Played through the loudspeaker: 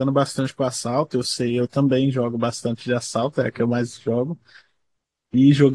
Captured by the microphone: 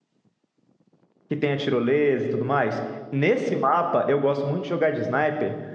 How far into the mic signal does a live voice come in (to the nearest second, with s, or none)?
1 s